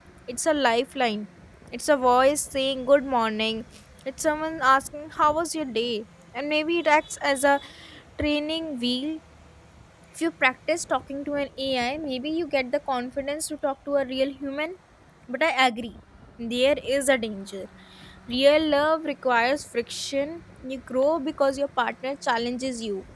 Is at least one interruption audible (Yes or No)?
No